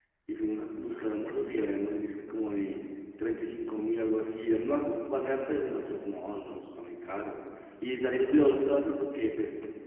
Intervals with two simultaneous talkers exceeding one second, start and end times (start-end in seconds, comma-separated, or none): none